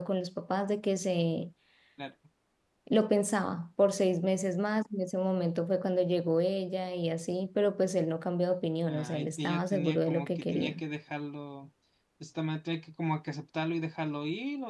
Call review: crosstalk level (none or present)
present